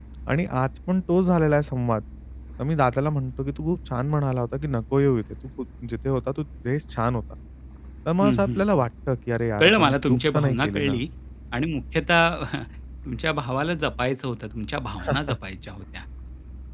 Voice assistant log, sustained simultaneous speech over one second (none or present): present